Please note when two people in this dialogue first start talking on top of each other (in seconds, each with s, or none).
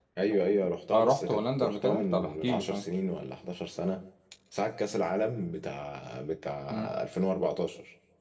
0.9 s